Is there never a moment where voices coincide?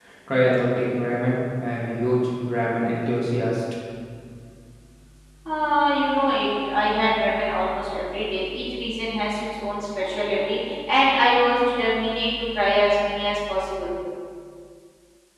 Yes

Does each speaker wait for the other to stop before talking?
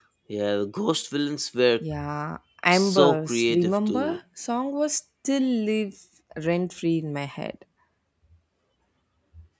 No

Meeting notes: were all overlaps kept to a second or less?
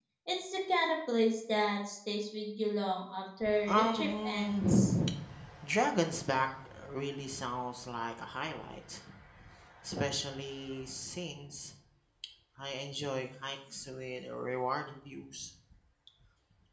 No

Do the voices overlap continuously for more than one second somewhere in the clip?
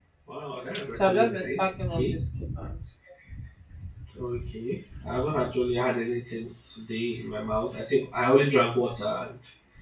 Yes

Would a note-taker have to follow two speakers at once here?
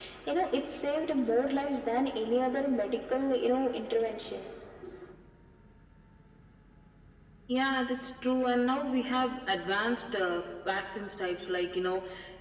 No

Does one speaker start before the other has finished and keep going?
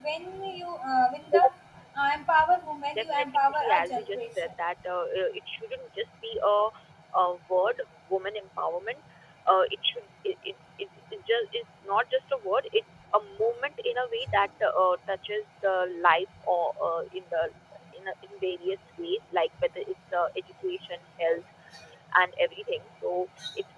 Yes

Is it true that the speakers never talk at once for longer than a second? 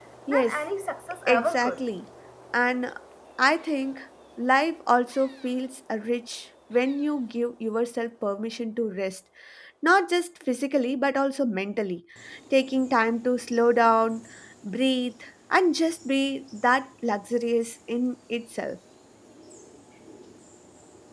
Yes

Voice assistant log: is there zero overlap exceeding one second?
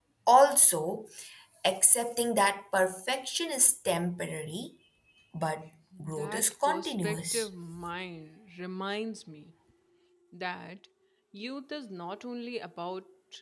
No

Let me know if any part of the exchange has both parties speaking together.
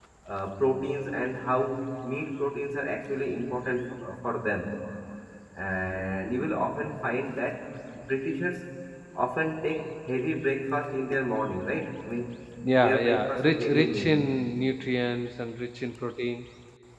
Yes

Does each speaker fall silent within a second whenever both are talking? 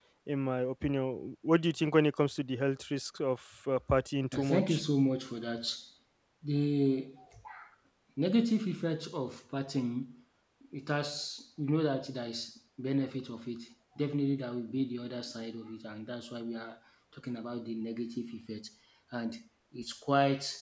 Yes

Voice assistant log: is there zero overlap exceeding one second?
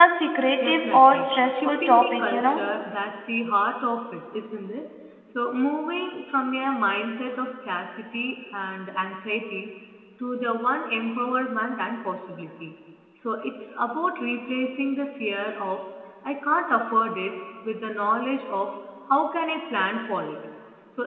No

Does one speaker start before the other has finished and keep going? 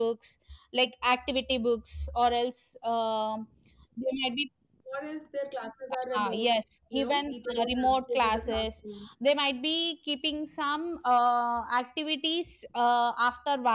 Yes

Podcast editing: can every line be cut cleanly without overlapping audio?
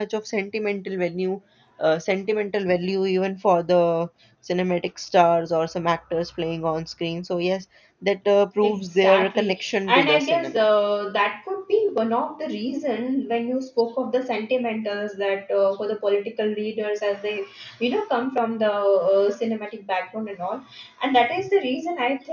No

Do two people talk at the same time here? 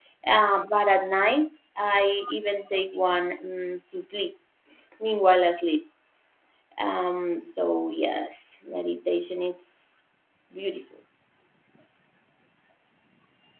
No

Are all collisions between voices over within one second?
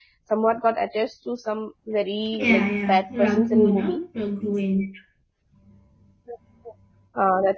No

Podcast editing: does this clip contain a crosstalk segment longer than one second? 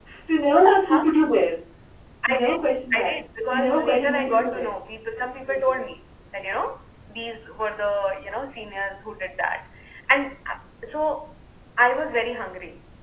Yes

